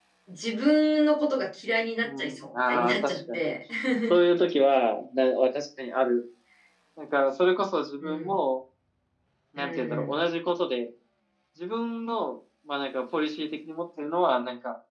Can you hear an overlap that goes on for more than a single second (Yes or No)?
Yes